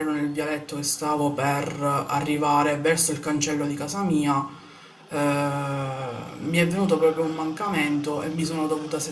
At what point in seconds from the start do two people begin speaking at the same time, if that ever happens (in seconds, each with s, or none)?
none